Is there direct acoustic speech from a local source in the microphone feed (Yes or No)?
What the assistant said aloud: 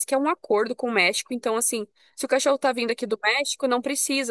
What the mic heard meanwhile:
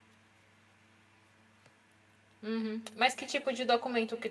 Yes